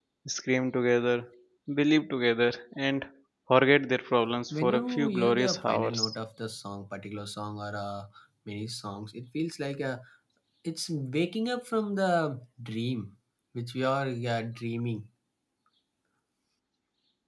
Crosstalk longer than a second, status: present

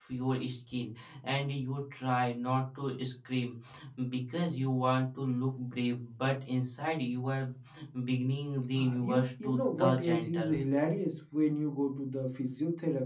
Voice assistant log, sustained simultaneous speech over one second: present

